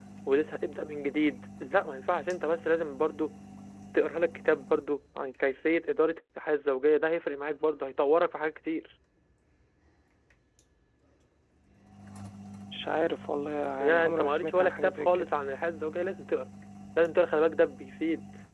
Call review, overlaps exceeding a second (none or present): present